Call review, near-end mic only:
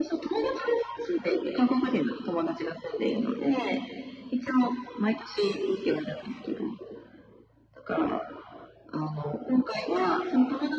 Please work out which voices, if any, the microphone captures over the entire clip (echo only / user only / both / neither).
echo only